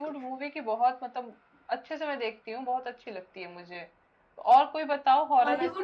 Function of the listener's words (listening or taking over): listening